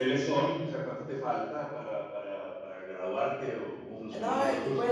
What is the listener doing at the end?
taking over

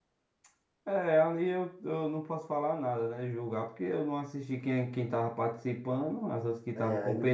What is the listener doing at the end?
taking over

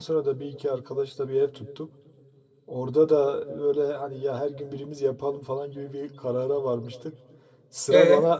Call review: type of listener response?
listening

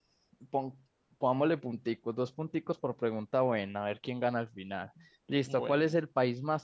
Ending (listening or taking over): listening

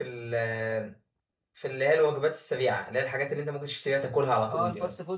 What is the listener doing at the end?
taking over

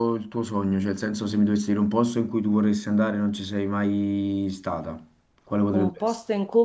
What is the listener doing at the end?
taking over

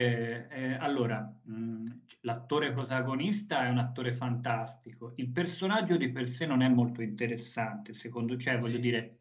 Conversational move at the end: listening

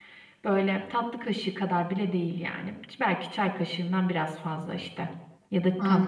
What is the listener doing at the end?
listening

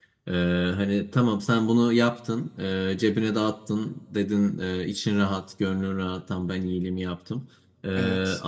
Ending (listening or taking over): listening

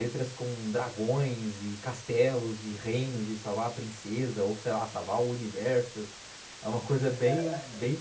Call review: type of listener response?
listening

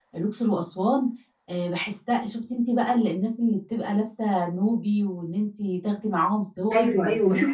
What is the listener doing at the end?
taking over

